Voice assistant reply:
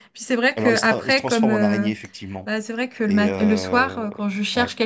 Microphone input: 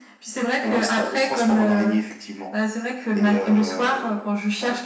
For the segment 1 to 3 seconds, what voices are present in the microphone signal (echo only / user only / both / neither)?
echo only